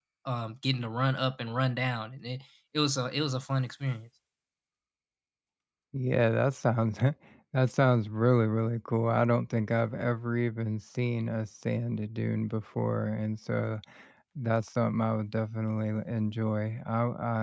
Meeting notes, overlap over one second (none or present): none